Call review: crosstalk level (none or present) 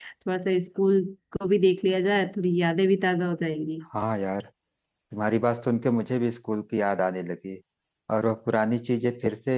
none